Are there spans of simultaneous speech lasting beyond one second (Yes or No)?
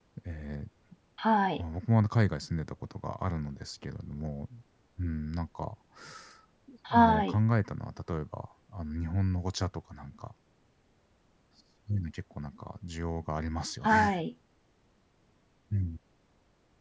No